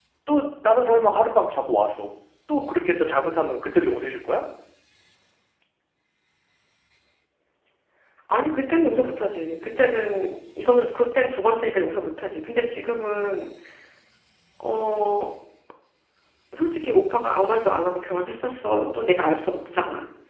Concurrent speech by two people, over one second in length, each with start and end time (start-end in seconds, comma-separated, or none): none